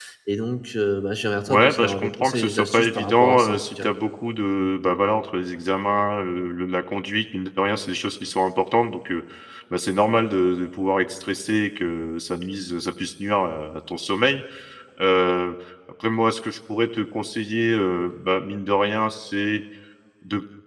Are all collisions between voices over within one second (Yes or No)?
No